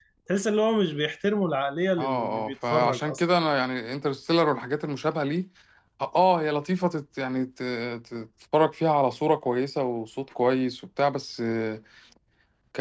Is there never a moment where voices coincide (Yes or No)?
No